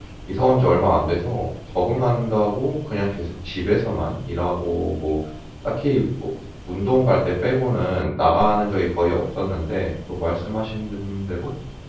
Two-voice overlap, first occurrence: none

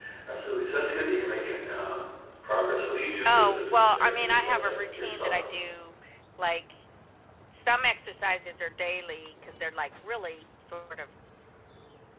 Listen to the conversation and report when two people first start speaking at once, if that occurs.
3 s

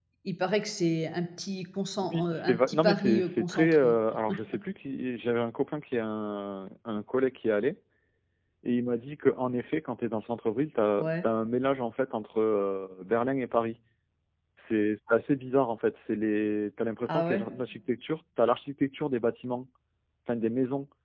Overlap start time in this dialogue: 2 s

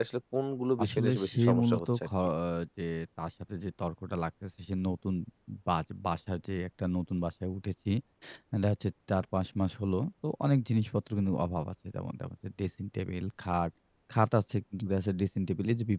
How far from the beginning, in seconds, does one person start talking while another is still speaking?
1 s

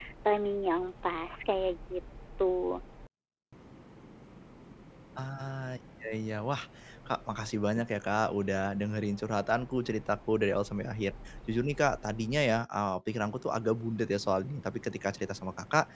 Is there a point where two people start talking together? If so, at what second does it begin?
none

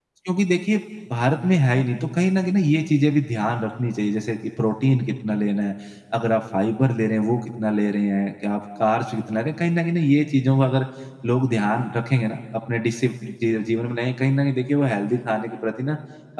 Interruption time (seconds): none

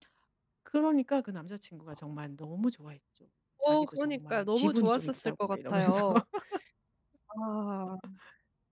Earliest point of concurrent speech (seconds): 4 s

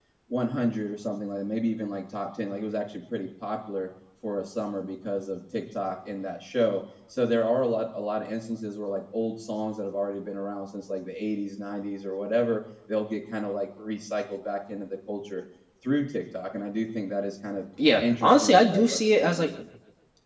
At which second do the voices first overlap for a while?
18 s

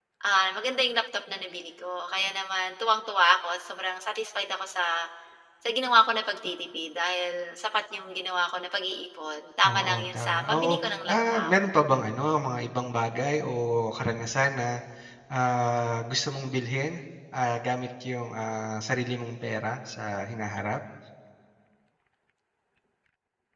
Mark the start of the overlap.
10 s

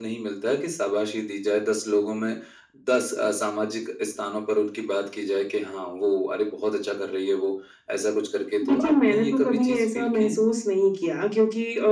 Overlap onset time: 9 s

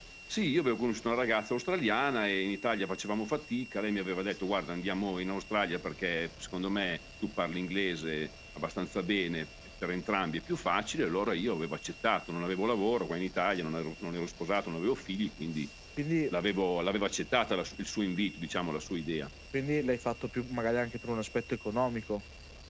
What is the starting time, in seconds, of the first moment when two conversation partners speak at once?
none

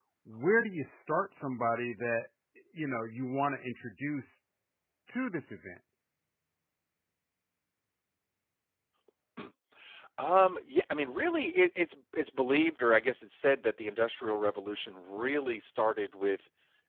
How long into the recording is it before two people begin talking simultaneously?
none

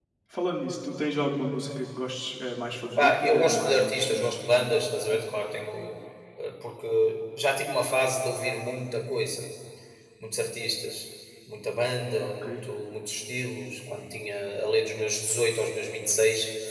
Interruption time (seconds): 3 s

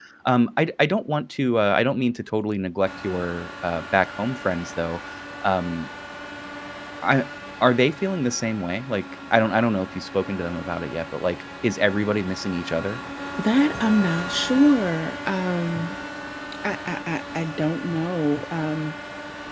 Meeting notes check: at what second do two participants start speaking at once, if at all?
none

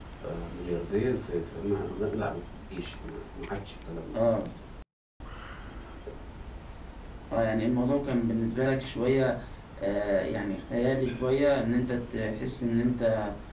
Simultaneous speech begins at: none

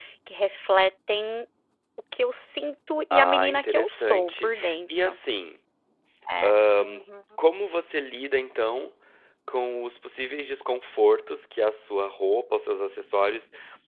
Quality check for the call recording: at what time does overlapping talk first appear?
3 s

